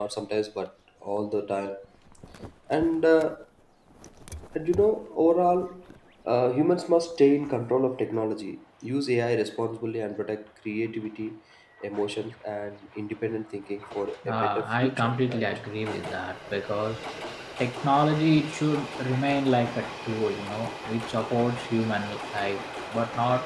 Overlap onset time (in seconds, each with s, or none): 14.2 s